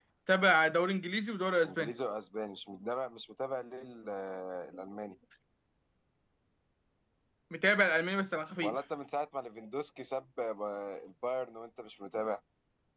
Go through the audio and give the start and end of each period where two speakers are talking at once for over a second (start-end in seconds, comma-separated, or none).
none